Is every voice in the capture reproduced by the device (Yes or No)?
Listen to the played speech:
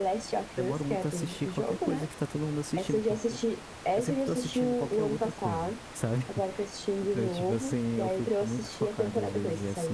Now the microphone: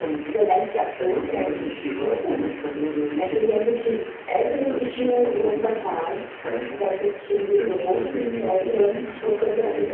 Yes